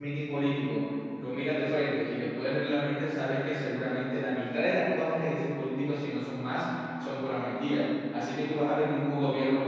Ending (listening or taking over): listening